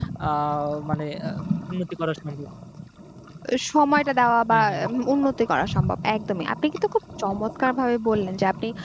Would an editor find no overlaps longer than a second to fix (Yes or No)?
Yes